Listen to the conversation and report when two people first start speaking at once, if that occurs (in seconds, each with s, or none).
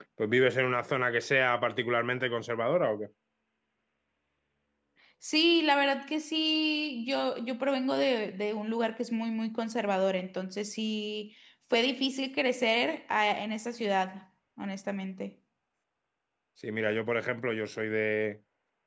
none